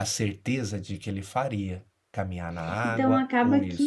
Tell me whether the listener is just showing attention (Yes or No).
No